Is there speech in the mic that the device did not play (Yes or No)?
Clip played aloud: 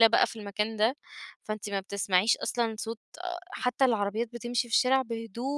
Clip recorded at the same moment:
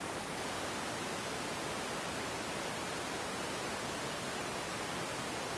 No